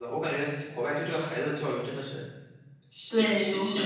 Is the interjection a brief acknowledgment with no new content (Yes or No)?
No